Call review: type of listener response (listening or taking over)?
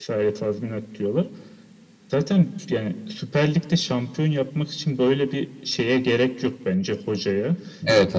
listening